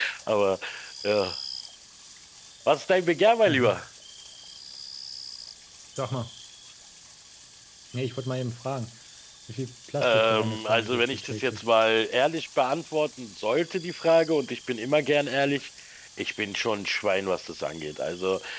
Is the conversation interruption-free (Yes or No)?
No